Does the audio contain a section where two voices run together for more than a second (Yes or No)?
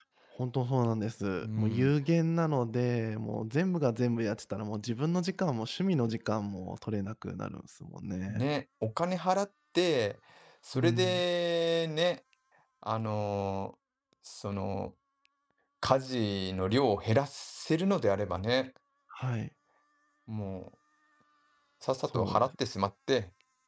No